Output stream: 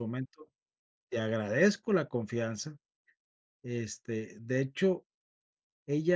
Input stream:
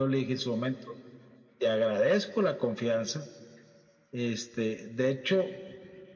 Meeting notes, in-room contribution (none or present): none